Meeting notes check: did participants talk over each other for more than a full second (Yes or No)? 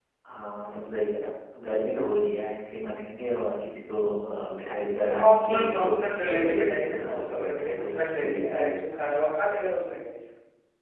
Yes